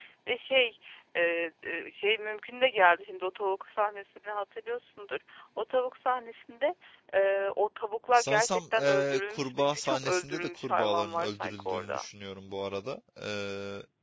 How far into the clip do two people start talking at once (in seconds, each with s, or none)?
8.1 s